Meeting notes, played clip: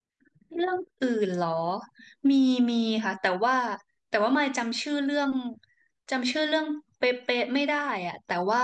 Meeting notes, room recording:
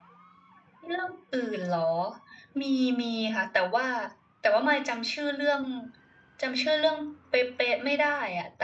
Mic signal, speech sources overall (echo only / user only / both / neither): echo only